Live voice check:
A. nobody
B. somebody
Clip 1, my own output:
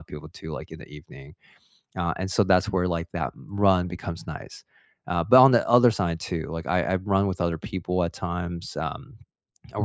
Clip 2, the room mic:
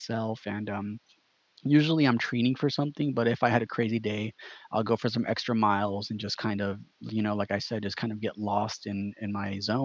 B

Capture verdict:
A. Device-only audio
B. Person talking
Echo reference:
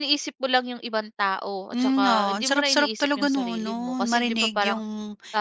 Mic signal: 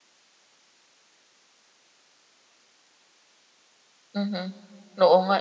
B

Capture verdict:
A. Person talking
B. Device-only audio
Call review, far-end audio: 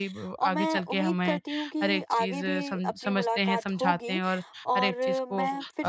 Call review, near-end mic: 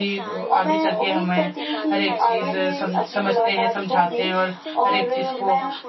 A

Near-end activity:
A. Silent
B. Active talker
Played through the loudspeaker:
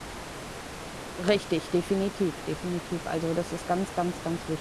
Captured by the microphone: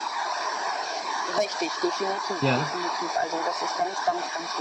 B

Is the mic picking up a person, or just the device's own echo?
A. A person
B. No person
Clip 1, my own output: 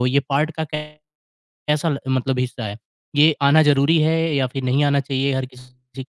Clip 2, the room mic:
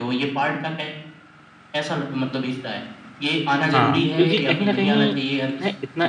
A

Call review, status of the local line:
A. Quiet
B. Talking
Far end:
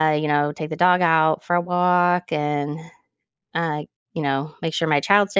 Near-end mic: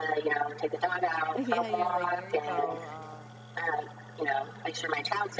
B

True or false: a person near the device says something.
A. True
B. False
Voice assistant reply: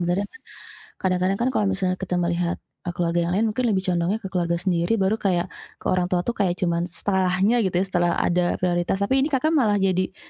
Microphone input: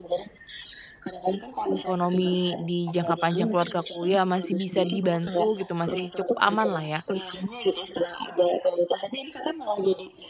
A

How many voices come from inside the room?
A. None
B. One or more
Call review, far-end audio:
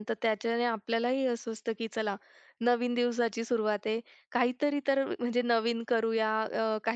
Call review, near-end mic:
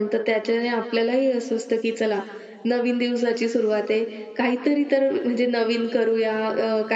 A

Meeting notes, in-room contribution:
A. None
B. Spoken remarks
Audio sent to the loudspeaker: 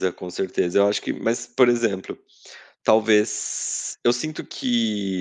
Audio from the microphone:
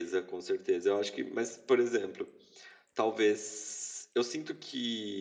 A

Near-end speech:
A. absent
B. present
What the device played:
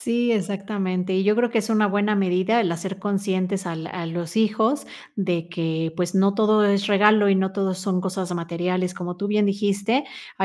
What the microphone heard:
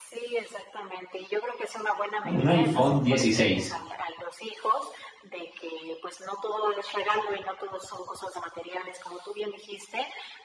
B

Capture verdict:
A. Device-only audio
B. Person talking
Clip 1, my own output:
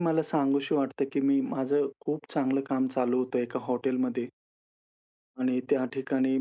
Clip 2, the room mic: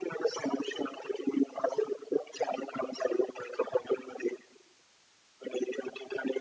A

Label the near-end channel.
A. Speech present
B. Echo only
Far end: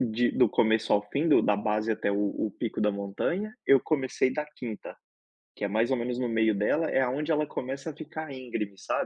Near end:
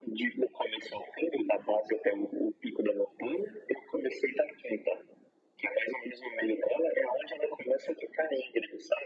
B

